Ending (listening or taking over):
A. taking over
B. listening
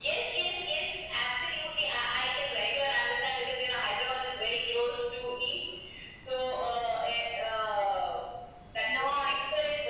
B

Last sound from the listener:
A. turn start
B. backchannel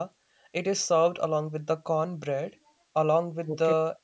B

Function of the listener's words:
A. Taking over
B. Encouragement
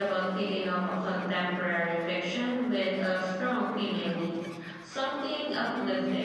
A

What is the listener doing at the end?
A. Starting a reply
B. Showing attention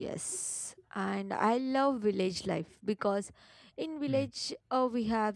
B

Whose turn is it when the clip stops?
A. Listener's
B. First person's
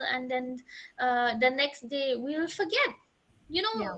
B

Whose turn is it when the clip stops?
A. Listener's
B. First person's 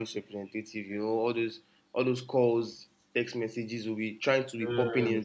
B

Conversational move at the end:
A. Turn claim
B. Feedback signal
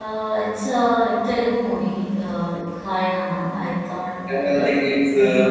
A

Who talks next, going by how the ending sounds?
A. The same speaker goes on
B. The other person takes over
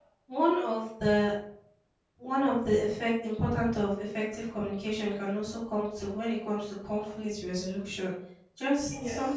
A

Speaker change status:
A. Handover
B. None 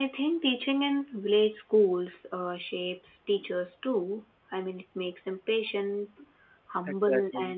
B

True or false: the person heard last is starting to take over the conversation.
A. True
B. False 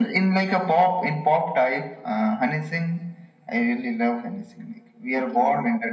B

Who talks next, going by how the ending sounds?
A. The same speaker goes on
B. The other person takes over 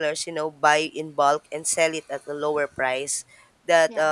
A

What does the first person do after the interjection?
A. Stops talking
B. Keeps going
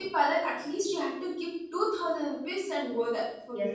A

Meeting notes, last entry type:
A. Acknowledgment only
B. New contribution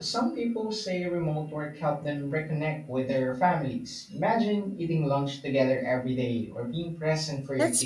B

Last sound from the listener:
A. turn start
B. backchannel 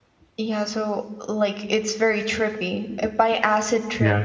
B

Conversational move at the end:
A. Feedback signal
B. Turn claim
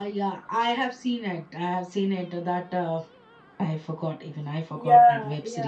B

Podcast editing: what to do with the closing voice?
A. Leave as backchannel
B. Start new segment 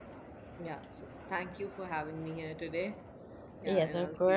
B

